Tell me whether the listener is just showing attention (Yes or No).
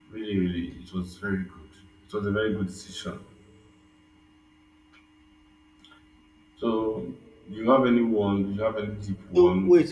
No